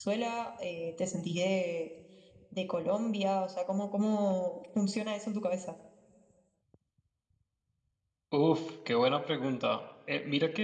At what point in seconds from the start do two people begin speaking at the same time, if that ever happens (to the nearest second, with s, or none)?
none